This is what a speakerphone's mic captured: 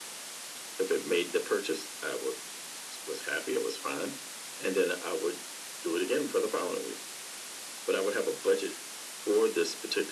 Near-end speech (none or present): none